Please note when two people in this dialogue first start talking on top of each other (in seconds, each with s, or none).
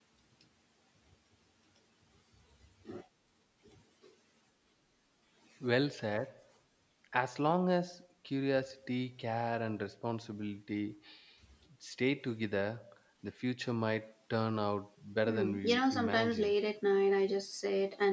15.3 s